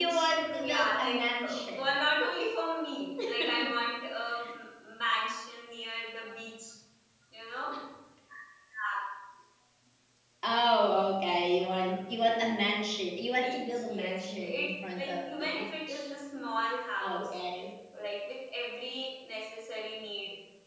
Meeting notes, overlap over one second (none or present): present